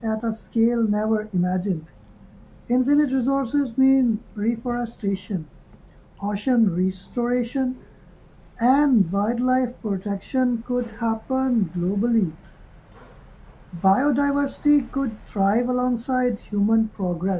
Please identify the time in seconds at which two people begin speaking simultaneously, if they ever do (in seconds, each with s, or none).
none